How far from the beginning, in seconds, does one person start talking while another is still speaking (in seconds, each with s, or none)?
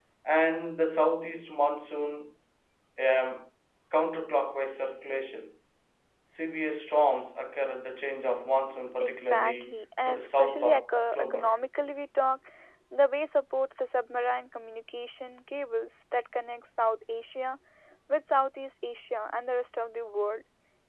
9.0 s